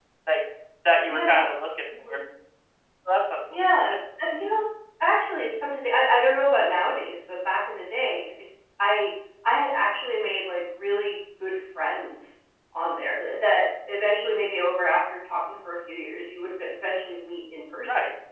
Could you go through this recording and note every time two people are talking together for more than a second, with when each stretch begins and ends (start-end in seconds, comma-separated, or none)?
none